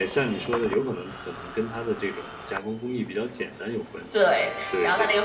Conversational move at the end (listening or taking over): taking over